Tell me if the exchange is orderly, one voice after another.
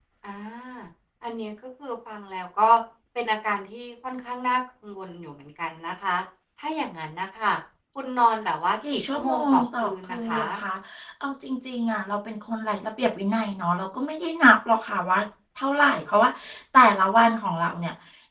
No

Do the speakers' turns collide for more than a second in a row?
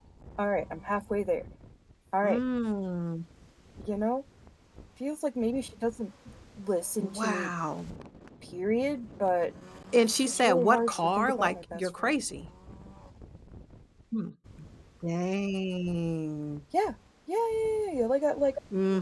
Yes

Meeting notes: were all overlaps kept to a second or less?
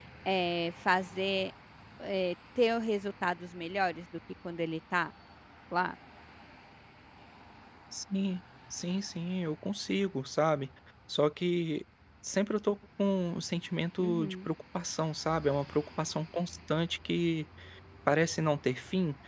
Yes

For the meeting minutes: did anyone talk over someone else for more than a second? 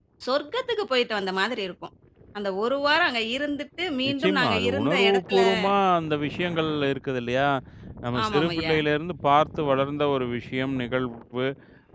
Yes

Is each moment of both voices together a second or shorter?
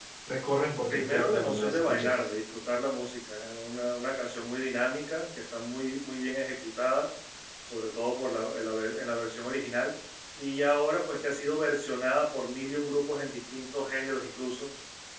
No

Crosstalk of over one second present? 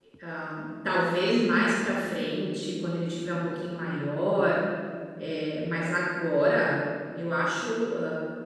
No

